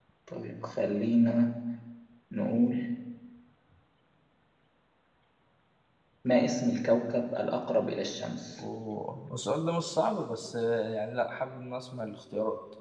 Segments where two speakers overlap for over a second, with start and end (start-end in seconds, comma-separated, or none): none